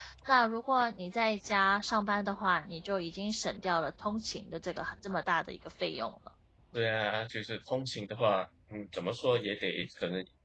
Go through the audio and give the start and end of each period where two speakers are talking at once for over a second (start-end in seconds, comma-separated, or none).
none